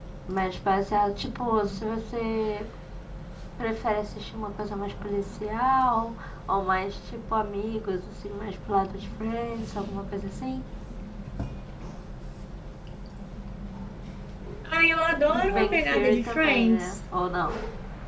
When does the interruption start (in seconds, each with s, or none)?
15.3 s